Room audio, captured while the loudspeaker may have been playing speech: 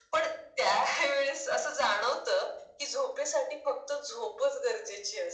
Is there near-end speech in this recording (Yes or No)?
No